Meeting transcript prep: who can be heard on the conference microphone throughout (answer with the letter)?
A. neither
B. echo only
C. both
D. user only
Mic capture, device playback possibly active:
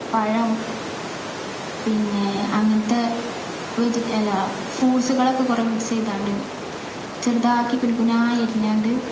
B